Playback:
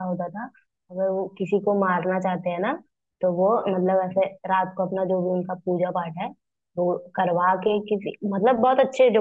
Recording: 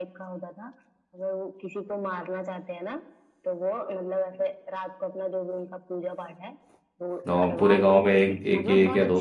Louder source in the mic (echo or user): user